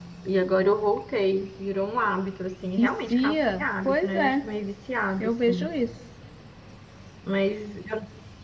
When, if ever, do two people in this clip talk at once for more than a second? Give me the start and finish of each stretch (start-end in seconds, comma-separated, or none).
2.8-4.4